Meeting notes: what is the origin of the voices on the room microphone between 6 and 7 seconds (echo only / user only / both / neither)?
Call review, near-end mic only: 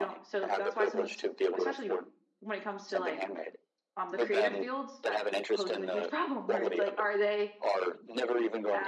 both